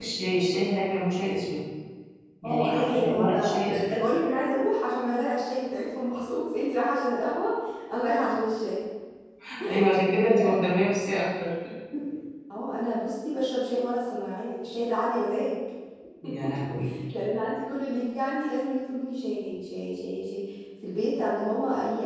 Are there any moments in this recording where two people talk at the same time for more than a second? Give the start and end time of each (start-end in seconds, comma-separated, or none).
2.4-3.9